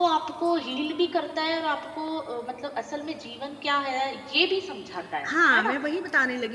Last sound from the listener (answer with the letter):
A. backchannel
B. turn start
B